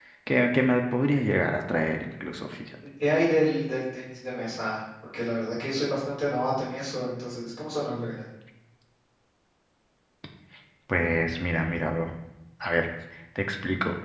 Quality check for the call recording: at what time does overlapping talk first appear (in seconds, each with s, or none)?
none